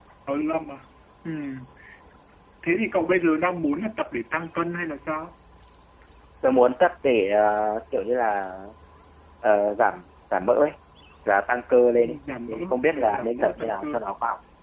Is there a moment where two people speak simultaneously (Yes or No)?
Yes